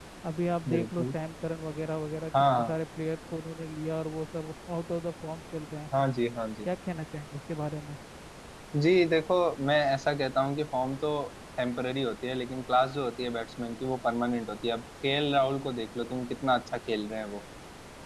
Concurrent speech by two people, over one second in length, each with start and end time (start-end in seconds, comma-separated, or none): none